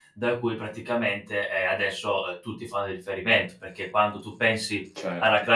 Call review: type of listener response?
listening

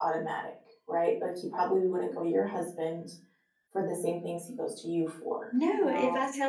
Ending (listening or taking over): taking over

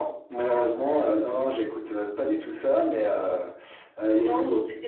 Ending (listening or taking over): taking over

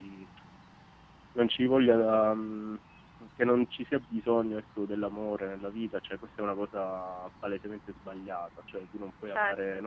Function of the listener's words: listening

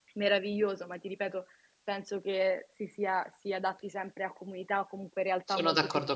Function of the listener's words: taking over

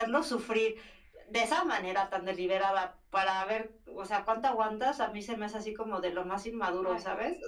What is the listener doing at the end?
taking over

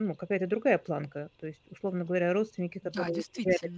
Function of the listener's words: listening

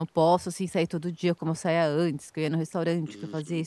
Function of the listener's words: taking over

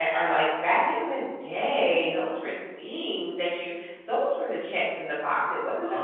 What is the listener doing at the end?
listening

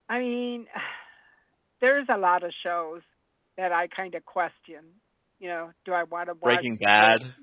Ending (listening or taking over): listening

